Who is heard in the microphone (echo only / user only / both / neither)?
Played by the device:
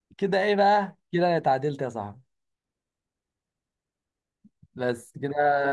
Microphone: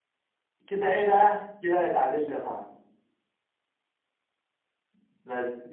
echo only